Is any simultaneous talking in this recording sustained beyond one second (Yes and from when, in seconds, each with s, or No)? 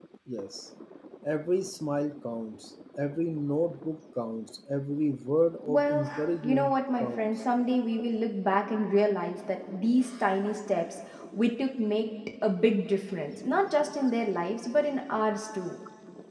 Yes, from 5.7 s